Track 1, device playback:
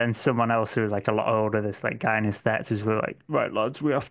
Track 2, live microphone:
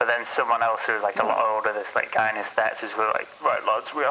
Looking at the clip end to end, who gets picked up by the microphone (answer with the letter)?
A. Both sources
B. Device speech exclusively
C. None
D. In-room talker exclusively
A